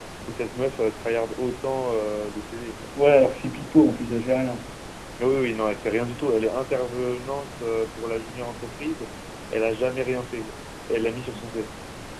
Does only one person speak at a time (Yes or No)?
Yes